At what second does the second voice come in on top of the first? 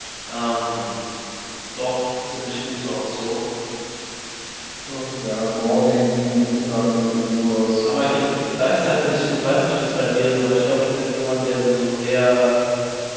none

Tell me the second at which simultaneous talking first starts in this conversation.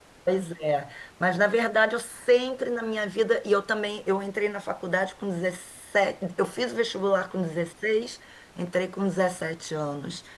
none

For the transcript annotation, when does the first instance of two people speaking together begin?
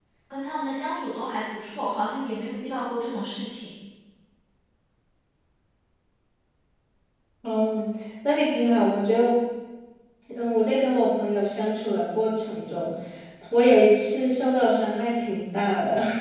none

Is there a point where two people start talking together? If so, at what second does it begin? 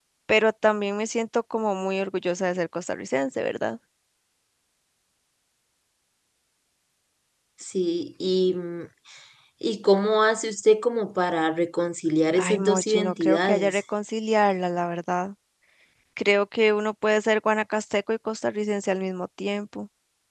12.4 s

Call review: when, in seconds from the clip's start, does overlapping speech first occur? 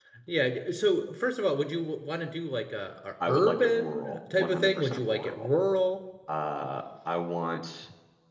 3.2 s

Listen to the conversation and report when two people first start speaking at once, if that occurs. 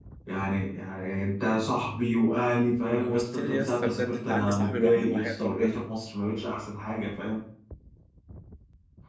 2.9 s

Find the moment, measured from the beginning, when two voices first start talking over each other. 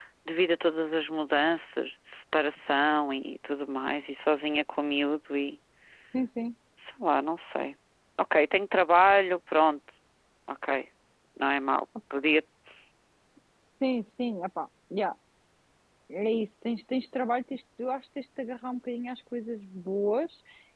none

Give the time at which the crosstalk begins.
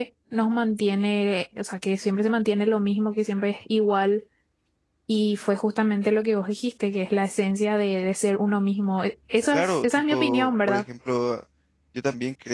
9.5 s

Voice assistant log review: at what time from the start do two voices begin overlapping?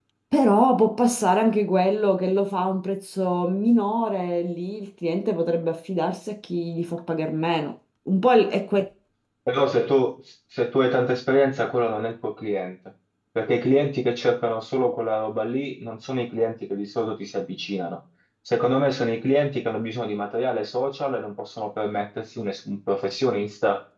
none

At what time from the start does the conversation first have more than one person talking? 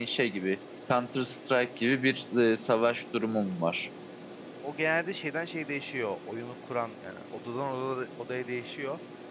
none

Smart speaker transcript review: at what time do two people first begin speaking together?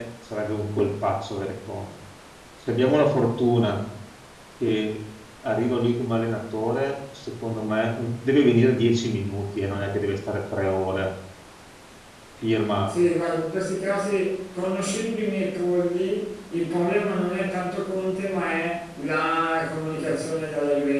none

